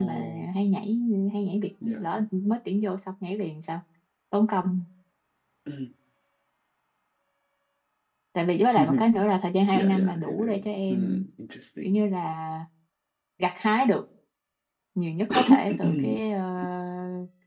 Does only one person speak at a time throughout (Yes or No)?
No